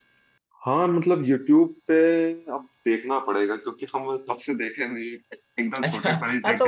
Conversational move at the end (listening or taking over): taking over